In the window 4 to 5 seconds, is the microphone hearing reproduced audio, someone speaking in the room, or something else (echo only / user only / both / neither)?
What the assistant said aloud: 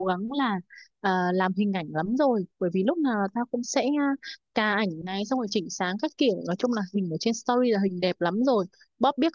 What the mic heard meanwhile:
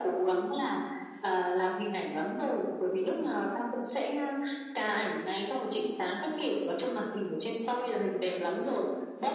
echo only